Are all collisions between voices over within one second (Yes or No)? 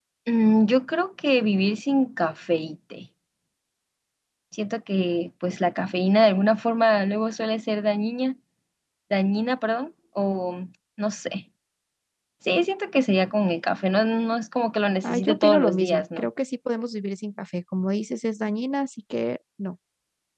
No